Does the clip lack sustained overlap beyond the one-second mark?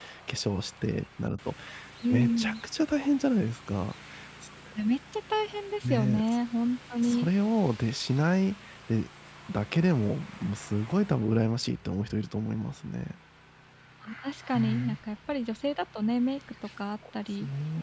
Yes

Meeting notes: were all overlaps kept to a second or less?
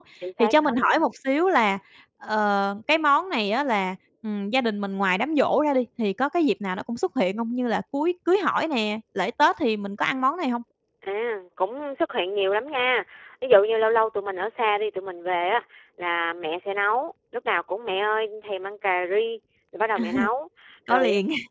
Yes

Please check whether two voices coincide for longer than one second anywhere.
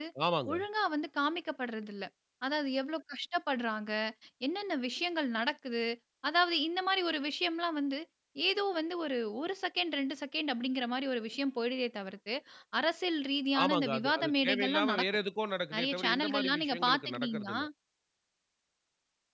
Yes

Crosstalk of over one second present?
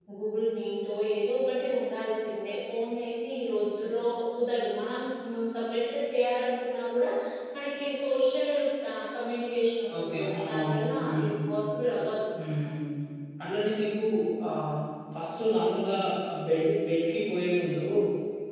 Yes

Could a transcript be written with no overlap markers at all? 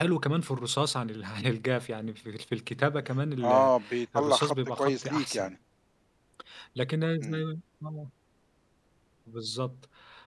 No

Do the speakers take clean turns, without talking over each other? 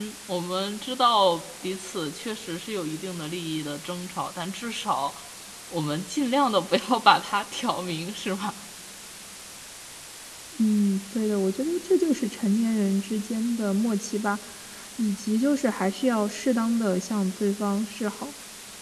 Yes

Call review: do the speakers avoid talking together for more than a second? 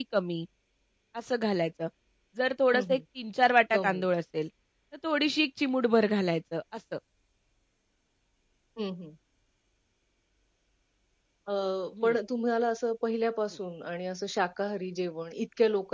Yes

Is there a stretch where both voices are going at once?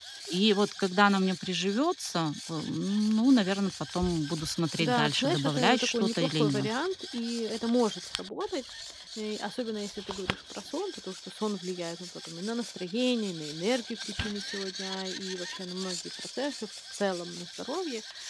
Yes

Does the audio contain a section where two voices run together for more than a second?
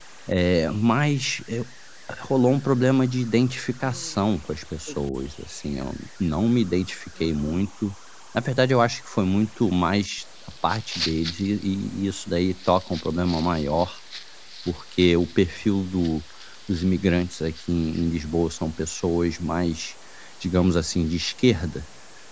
No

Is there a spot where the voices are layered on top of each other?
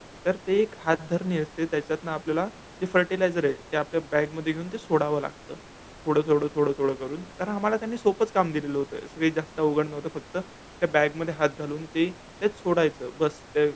No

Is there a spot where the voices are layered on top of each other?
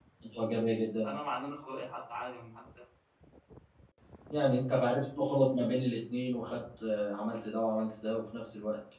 No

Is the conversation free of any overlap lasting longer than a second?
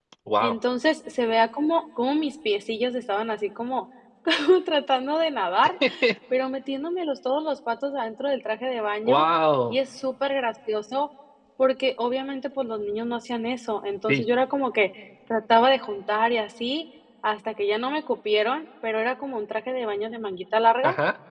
Yes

